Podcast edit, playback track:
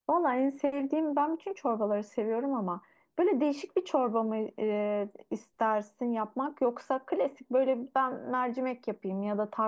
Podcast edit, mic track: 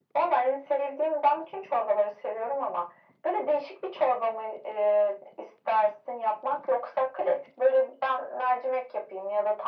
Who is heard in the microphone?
echo only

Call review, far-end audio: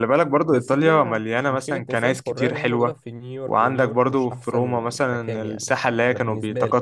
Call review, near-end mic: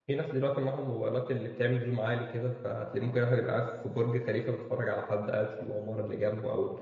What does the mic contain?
user only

